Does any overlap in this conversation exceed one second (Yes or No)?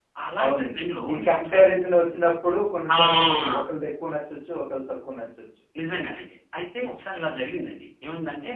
Yes